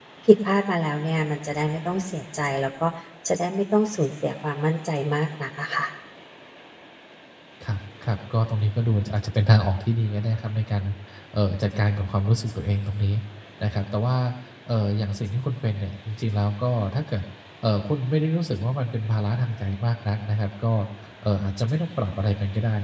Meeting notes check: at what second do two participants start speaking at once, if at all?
none

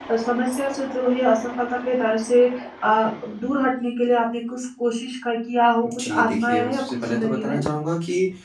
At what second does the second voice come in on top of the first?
6 s

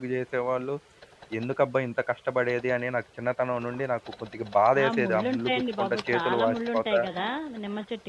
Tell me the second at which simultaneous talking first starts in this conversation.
5 s

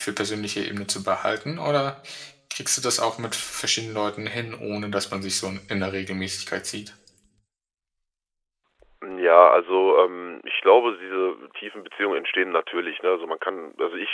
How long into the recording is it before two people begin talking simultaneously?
none

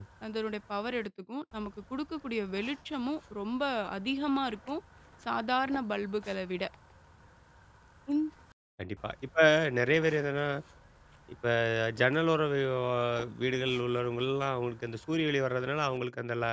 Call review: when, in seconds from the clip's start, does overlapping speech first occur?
none

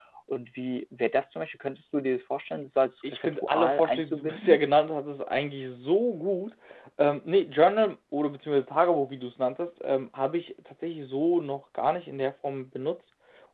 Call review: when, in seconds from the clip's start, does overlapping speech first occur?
3 s

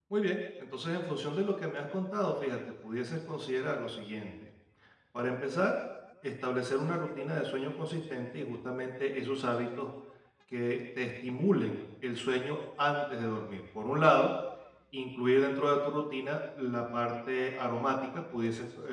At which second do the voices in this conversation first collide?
none

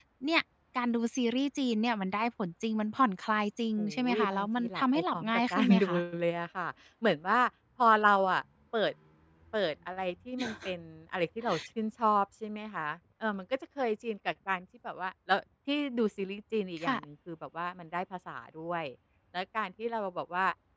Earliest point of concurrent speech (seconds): 4 s

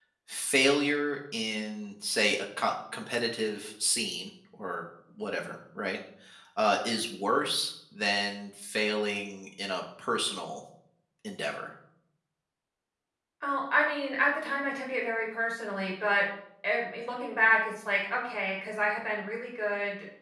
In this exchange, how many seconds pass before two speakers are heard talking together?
none

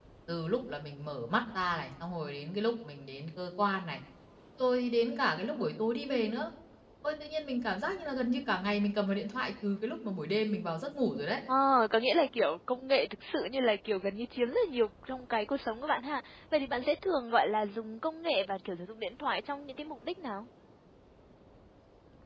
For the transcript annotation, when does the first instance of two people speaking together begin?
none

